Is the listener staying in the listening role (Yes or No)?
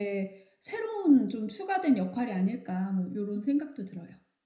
No